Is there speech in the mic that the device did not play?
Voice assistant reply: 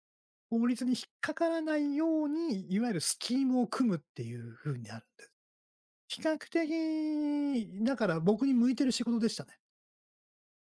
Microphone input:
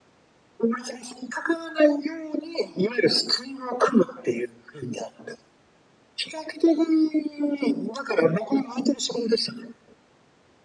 No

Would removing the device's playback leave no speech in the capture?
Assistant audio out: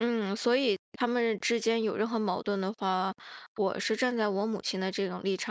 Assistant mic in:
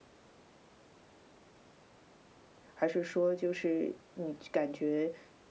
No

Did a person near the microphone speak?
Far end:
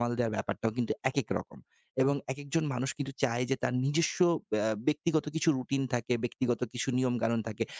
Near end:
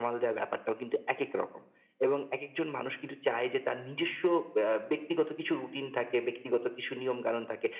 No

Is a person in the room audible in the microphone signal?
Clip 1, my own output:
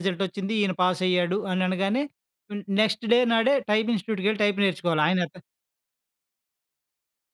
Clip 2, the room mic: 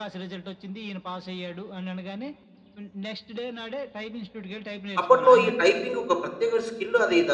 Yes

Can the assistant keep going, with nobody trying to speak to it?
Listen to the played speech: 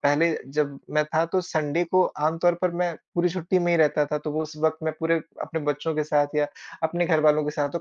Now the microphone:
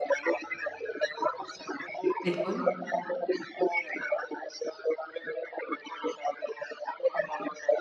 No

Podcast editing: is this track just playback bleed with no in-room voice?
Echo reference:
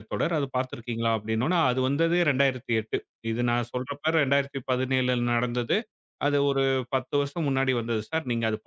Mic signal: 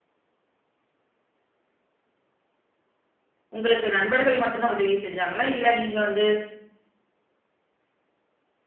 No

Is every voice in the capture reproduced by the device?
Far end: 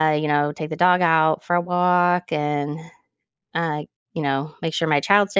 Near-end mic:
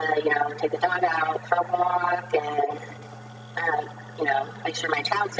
Yes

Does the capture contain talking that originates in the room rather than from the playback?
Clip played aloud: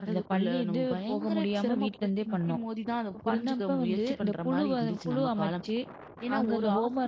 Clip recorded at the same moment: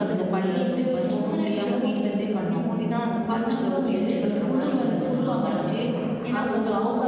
No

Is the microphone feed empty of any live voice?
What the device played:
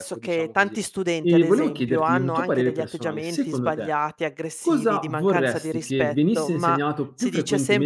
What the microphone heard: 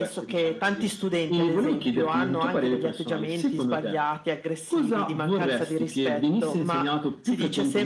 Yes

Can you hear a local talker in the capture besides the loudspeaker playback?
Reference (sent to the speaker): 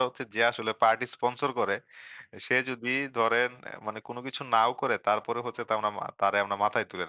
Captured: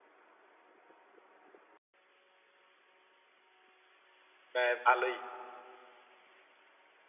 Yes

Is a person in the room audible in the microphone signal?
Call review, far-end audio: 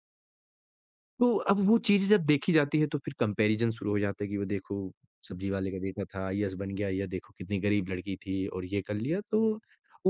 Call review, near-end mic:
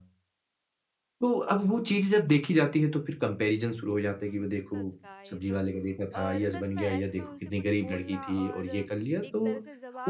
Yes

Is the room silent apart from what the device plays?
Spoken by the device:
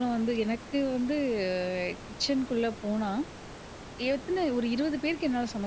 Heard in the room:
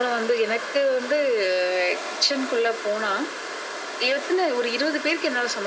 Yes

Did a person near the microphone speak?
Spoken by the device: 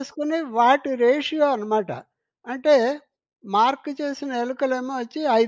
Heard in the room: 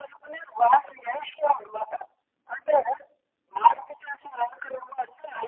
No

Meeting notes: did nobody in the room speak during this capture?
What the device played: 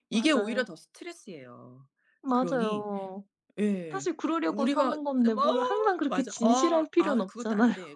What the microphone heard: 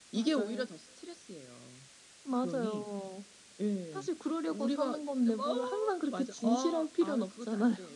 Yes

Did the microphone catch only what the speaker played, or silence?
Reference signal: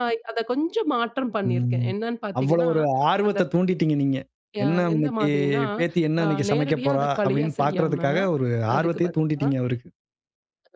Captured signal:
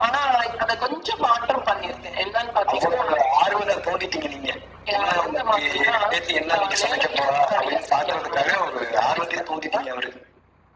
Yes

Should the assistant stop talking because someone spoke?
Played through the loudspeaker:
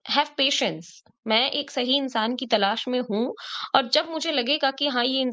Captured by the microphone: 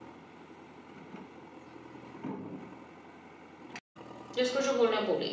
Yes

